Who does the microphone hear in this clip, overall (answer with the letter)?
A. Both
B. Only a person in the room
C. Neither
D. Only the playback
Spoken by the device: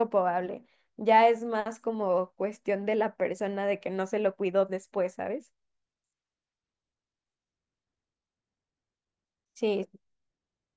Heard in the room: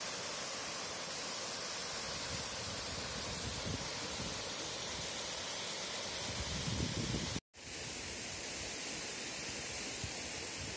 C